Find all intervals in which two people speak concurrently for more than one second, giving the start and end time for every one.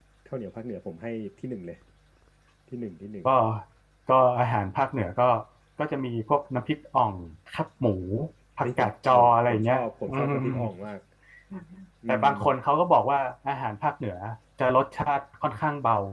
8.6-10.5

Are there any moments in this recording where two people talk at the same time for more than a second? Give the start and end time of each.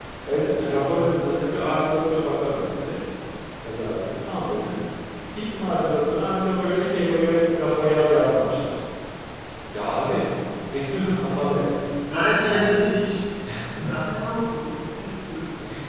none

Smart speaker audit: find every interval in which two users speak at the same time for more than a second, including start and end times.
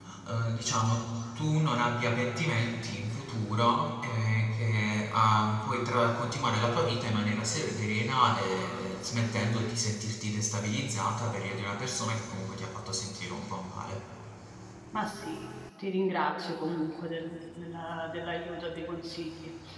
none

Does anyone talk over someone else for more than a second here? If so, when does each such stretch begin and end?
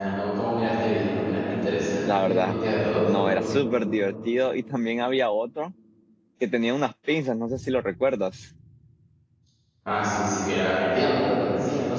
none

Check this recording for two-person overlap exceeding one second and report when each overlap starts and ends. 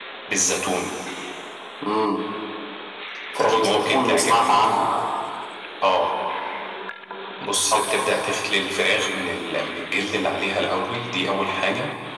3.4-4.7

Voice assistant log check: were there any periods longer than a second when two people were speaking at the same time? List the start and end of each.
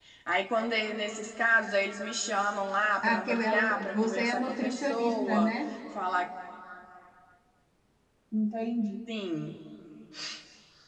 3.0-5.5

